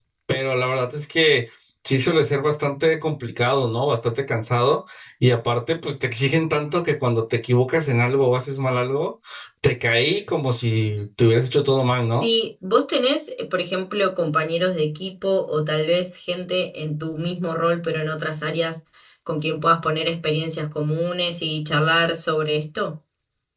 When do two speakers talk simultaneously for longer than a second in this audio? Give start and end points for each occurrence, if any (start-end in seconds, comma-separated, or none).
none